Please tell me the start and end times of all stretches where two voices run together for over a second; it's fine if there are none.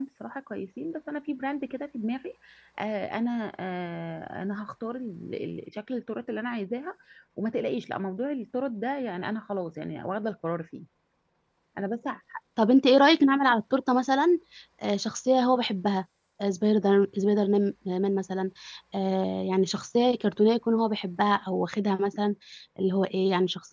none

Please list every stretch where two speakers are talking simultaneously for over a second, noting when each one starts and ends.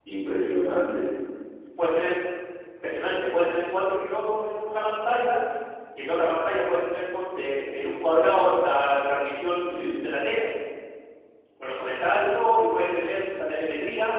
none

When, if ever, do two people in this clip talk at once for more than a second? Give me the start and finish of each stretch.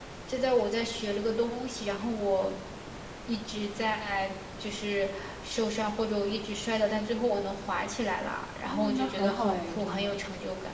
8.7-10.2

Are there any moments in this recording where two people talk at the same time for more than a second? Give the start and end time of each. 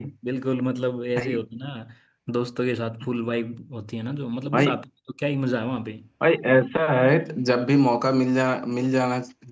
none

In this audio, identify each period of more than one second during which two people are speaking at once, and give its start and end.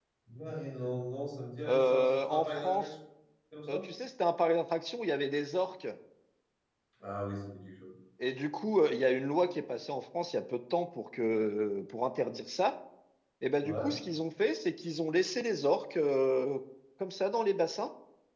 1.7-2.9

